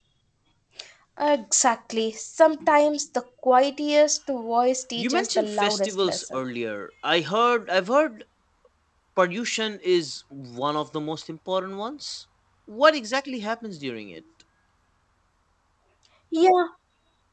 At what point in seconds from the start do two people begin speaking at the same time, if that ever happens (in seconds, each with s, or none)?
5.0 s